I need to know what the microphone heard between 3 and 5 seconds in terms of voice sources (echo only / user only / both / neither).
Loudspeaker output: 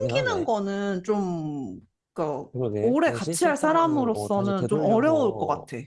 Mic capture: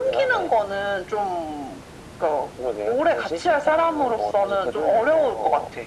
echo only